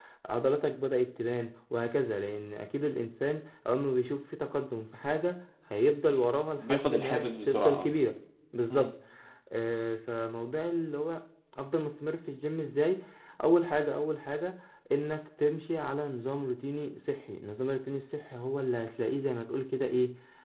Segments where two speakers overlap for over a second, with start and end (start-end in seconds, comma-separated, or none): 6.1-7.9